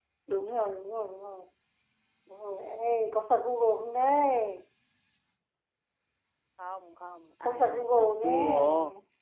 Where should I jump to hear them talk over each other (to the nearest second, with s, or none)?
7 s